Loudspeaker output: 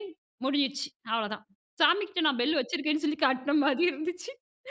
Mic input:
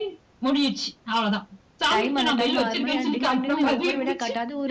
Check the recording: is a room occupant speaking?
Yes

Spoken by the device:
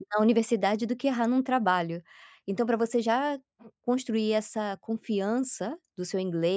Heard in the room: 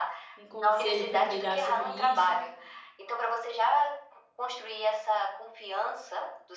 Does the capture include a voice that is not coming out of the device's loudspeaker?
Yes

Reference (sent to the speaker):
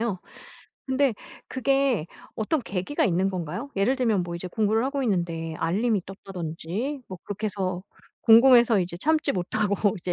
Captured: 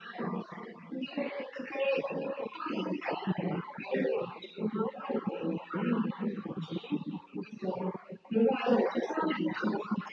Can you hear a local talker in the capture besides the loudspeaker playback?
No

